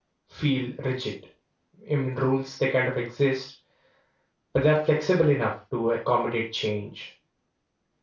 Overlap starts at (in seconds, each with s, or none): none